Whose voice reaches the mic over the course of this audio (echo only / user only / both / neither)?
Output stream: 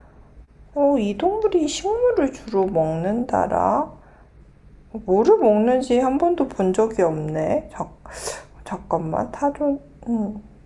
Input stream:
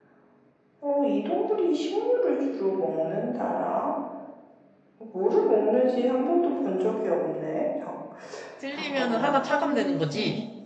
both